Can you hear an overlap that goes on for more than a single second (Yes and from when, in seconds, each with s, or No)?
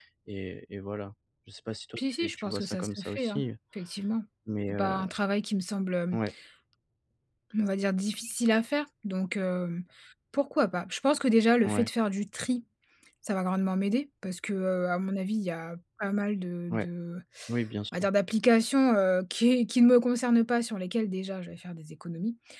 Yes, from 2.0 s